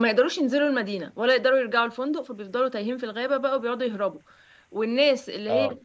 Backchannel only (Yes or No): Yes